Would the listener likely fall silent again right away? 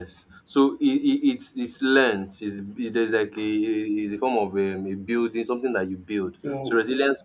Yes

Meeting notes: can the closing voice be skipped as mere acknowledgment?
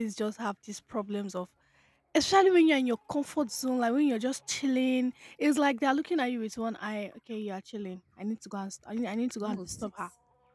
No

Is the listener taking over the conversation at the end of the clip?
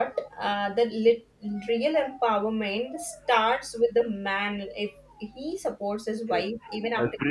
Yes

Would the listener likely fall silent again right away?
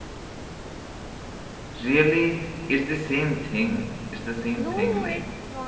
No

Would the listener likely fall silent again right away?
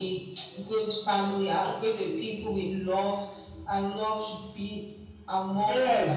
No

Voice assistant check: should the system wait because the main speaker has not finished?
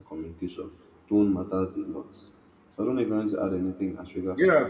No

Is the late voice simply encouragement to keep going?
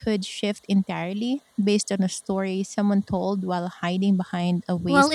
No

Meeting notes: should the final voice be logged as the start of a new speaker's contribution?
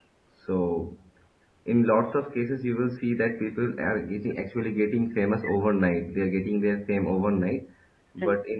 No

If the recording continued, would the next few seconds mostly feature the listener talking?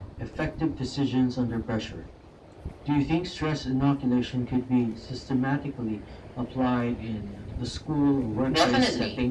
Yes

